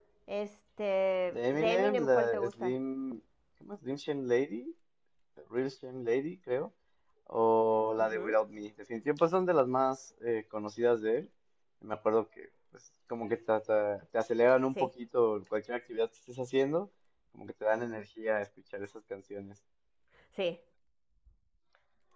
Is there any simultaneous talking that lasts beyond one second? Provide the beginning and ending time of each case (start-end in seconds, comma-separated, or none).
1.3-2.7